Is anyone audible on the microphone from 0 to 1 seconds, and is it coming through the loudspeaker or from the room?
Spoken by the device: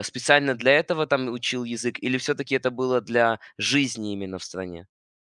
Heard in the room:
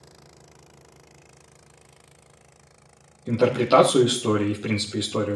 neither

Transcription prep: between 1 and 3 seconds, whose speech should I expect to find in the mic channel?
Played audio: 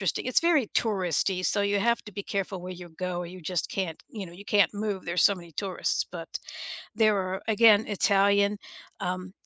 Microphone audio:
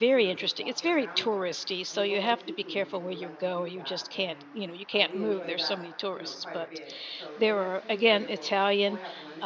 both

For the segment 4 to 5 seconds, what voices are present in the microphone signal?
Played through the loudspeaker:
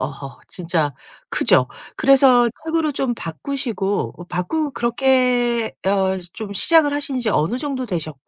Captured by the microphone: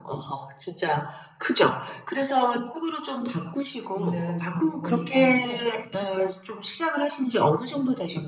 both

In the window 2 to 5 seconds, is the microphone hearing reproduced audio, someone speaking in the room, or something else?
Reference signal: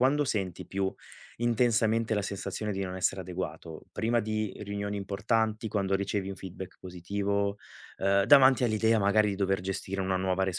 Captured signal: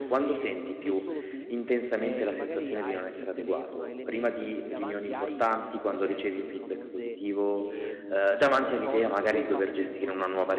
both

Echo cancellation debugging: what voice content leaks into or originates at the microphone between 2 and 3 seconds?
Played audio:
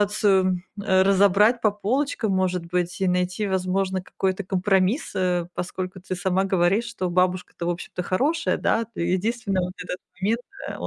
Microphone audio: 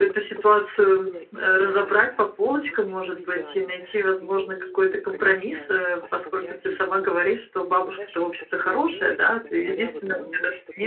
both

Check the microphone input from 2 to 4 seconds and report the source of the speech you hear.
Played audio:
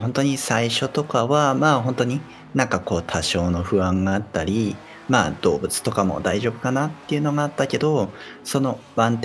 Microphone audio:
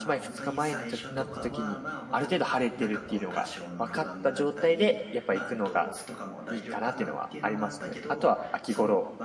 both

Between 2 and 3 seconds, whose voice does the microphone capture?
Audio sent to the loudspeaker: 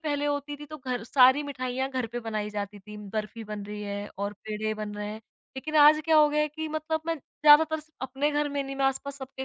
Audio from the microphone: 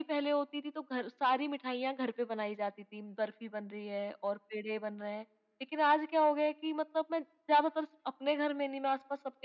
echo only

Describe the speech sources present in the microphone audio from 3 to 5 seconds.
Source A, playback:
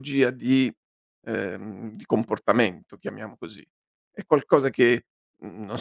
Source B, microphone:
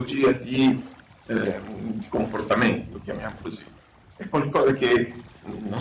echo only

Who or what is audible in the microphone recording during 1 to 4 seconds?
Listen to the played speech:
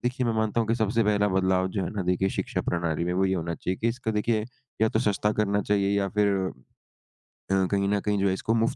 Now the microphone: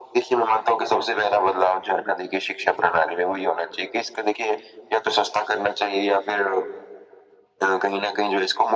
echo only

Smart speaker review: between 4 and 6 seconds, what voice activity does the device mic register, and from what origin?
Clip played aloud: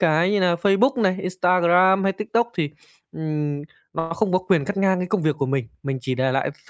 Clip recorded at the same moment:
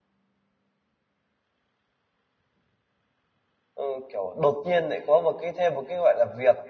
user only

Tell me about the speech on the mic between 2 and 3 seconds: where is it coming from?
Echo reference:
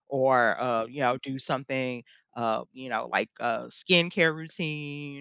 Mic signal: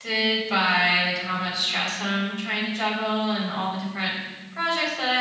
user only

